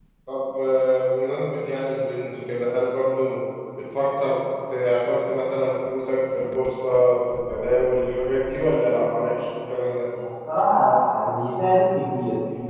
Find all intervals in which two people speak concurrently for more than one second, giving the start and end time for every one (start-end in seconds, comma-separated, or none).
none